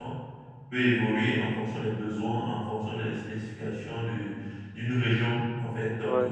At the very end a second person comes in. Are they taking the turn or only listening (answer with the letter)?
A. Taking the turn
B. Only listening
B